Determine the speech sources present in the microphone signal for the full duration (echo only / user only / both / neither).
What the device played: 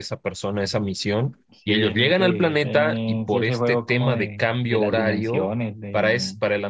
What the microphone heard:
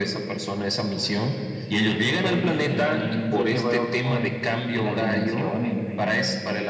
both